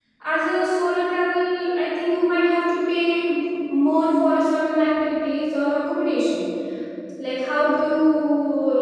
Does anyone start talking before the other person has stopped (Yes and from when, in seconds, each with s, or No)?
No